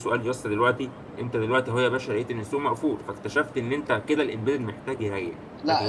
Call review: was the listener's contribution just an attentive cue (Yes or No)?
No